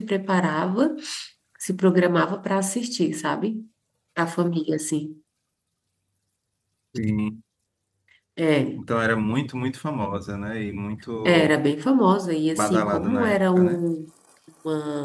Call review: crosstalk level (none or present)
present